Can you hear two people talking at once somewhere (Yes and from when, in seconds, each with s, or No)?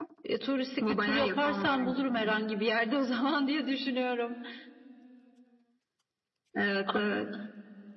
Yes, from 0.9 s